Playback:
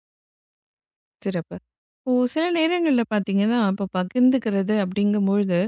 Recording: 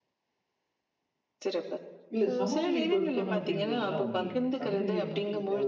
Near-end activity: present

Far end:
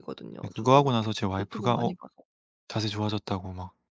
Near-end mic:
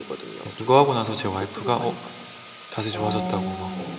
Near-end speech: present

